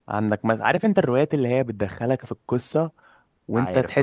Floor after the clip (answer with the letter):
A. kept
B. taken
A